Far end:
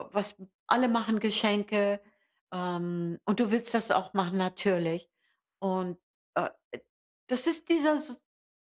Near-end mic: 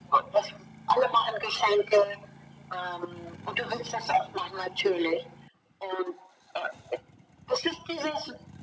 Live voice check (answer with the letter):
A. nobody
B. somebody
A